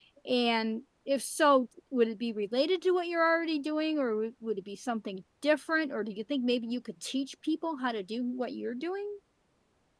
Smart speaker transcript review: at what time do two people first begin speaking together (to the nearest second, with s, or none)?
none